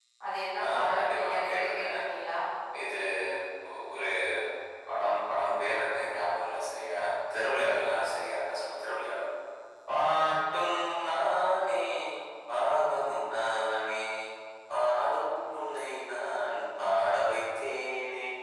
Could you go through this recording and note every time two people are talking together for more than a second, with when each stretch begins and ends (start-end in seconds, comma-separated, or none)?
0.7-2.0